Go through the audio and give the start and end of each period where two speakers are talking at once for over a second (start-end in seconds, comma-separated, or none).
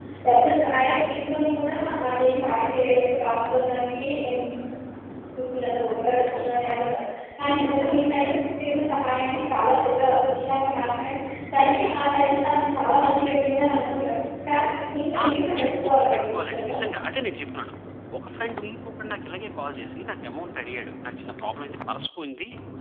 15.2-16.7